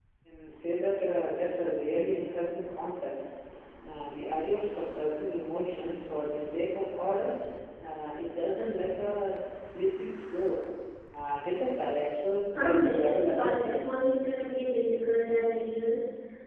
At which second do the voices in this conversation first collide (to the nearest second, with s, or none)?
12 s